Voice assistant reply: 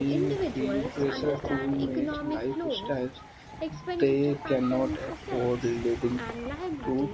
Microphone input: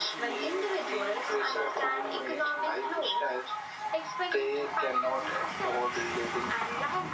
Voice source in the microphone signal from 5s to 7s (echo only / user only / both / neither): echo only